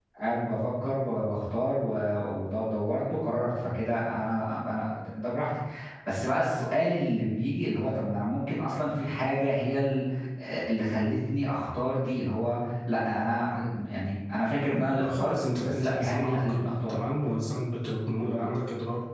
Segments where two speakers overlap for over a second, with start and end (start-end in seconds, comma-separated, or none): 14.8-17.0